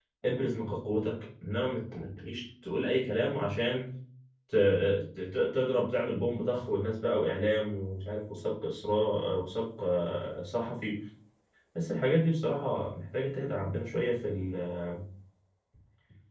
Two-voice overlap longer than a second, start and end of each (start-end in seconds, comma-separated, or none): none